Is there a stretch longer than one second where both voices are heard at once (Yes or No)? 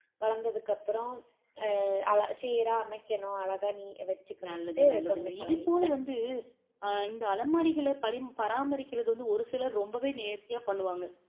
Yes